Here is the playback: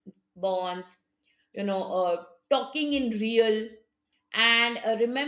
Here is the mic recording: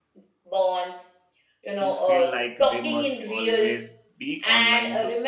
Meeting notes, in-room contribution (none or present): present